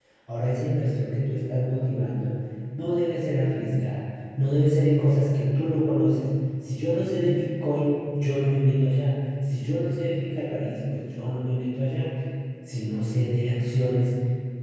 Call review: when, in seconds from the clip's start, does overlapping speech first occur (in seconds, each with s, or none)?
none